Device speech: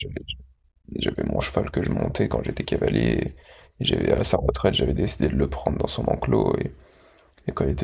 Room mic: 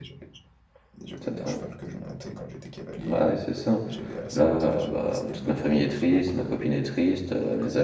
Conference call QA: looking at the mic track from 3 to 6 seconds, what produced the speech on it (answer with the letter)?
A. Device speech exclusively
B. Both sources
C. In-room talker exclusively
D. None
B